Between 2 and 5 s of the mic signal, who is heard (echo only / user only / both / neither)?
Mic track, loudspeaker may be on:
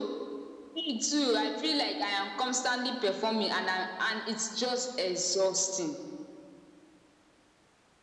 echo only